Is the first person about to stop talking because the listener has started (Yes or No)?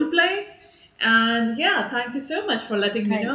No